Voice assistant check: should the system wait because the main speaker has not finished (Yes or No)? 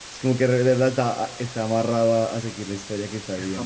No